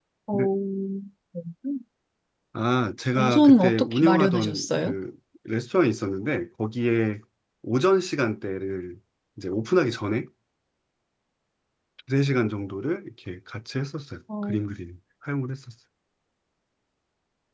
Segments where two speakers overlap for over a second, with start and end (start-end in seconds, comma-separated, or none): 3.1-5.0